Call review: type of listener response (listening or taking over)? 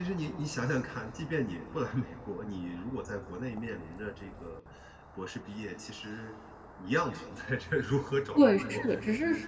taking over